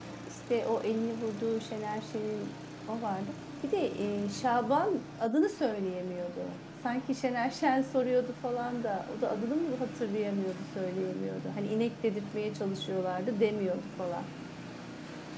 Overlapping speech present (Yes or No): No